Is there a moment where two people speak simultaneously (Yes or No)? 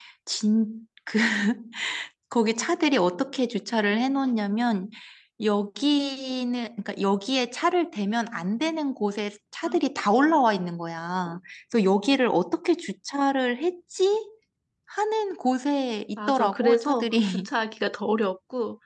Yes